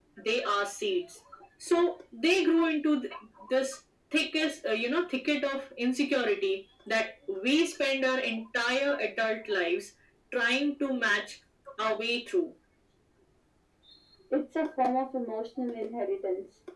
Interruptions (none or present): none